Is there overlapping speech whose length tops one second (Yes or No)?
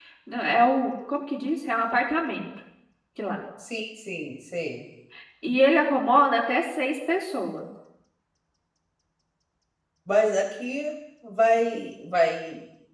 No